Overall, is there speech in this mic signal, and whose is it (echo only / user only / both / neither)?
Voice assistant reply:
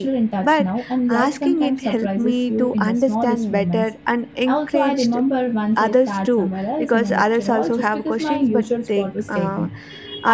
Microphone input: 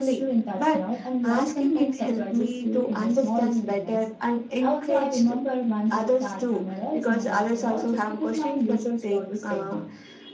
echo only